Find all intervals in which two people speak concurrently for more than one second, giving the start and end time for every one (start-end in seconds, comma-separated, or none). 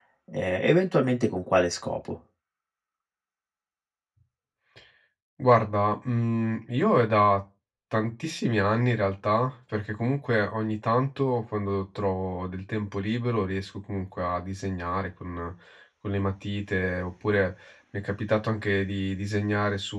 none